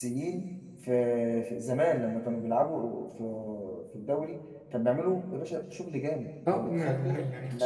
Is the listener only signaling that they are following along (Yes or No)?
No